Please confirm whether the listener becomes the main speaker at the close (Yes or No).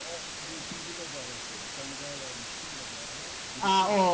Yes